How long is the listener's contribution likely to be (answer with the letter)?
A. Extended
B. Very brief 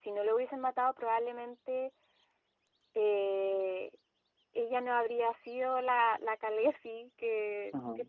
B